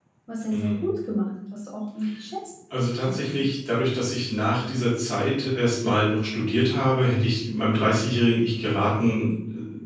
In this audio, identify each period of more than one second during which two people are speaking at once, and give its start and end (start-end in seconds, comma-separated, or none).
none